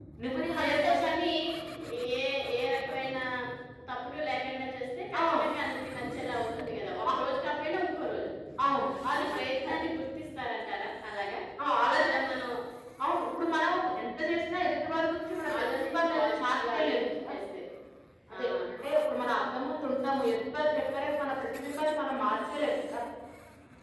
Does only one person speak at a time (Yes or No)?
No